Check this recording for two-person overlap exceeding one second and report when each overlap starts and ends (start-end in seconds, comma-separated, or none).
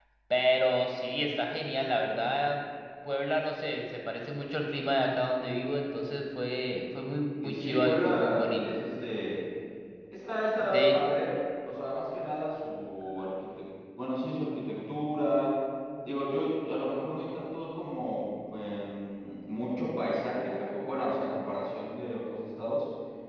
7.4-8.8